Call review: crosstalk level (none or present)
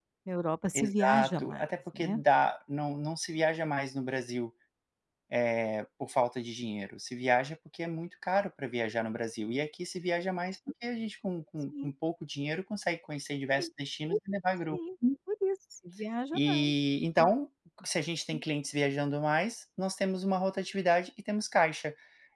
present